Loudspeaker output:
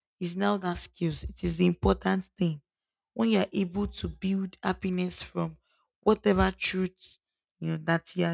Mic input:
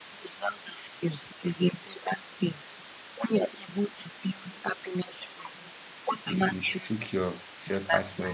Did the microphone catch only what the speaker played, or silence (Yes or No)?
No